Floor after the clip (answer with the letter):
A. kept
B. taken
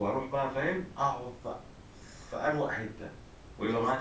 A